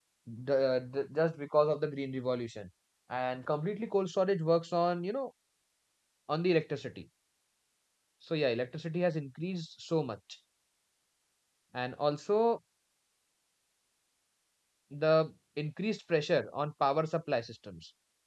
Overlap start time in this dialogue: none

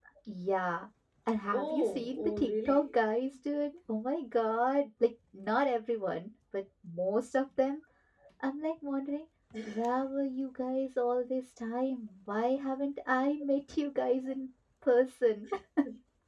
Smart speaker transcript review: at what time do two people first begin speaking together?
1.5 s

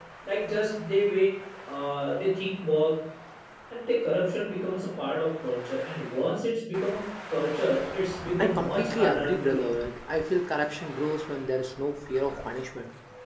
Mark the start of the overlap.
8.4 s

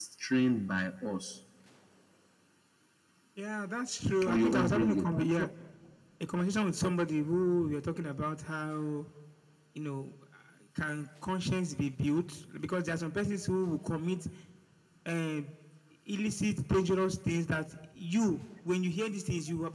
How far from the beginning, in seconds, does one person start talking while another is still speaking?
4.2 s

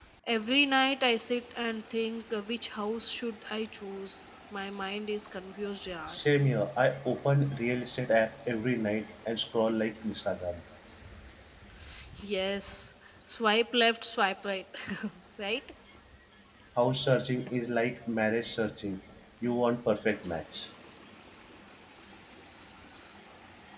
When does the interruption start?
none

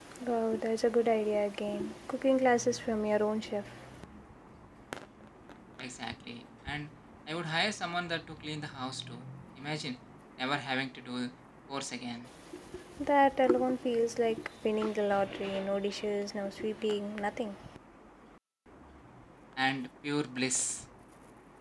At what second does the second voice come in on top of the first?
none

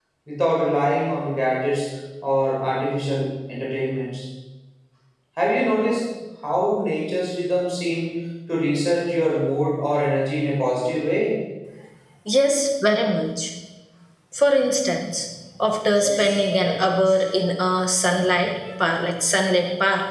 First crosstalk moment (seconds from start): 15.9 s

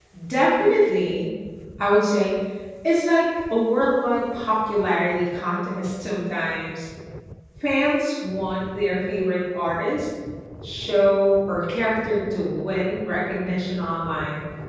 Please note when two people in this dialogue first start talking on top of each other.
none

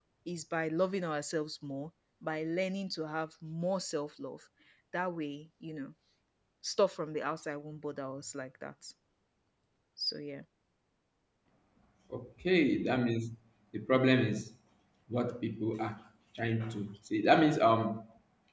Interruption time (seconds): none

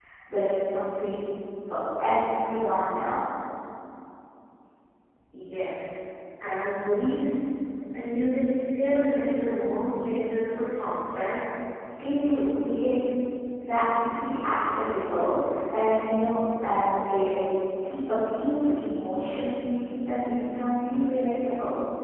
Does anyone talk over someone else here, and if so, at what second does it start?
none

